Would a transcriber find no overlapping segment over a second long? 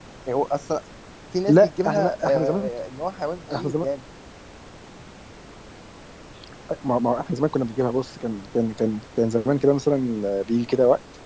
No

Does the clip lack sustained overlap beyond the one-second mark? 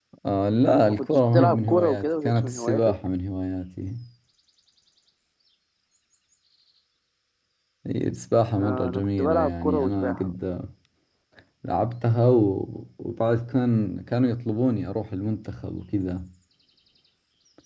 No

